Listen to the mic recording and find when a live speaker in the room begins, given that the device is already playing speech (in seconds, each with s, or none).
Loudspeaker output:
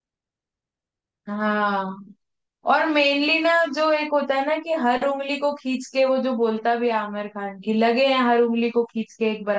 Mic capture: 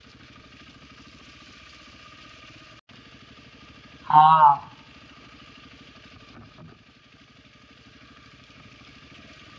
4.1 s